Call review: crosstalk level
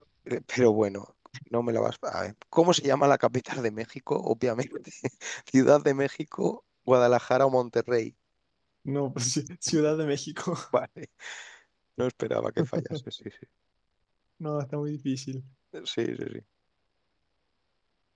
none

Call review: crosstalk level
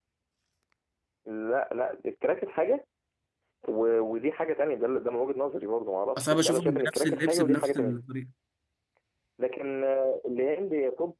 present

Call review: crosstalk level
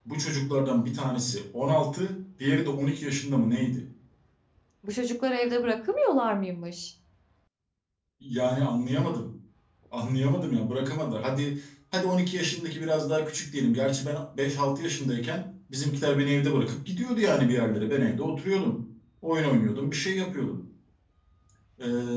none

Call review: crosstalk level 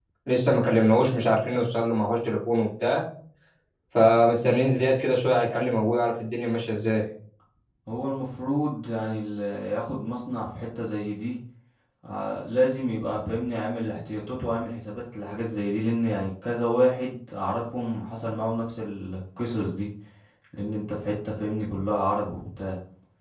none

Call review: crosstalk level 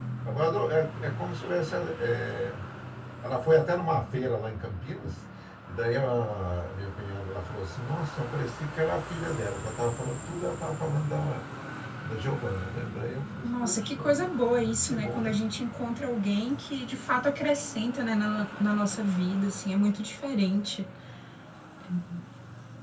present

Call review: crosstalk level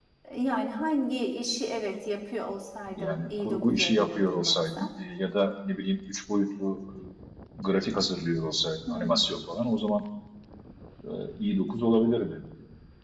present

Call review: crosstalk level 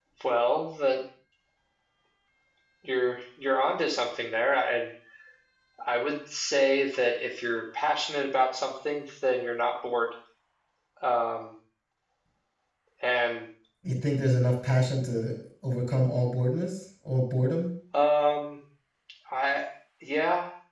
none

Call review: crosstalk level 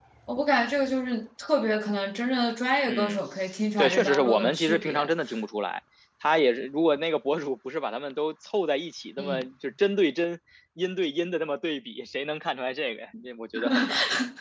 present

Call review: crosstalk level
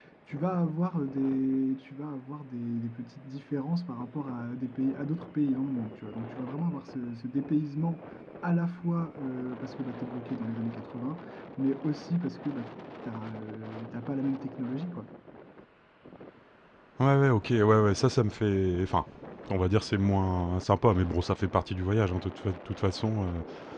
none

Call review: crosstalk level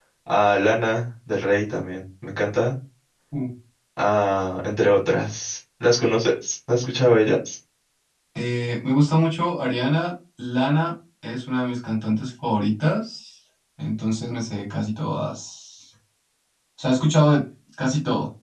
none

